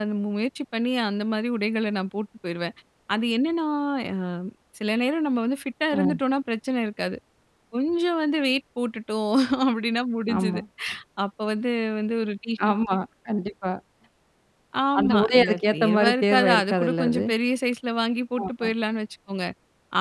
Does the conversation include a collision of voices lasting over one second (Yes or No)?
Yes